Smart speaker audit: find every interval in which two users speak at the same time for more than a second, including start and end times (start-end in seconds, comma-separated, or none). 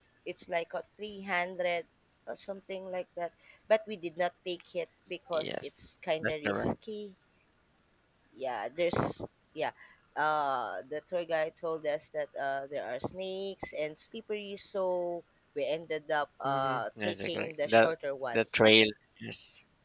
16.4-17.9